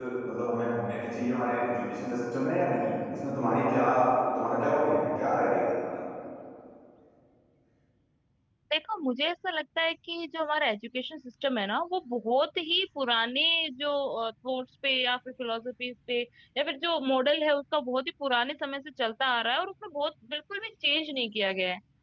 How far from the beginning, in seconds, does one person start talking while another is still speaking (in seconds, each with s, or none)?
none